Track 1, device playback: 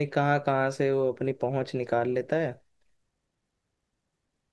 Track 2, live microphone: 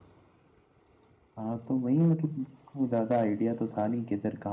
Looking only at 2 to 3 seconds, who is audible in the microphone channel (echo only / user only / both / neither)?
user only